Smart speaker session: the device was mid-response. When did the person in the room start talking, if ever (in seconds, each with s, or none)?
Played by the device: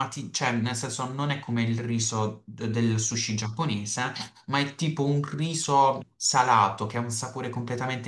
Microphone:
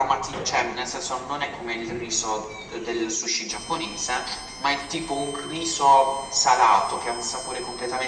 none